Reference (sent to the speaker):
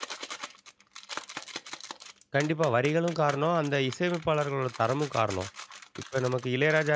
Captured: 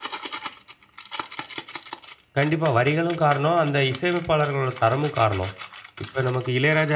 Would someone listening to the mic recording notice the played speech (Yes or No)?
Yes